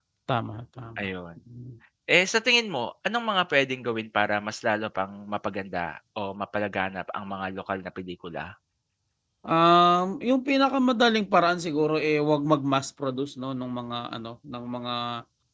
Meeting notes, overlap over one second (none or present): none